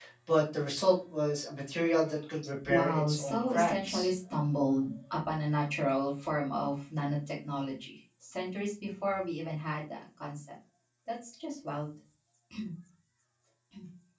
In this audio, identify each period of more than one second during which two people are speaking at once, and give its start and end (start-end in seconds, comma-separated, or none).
2.7-4.1